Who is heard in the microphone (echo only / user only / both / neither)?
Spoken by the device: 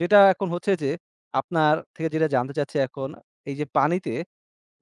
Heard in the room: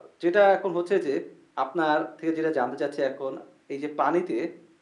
echo only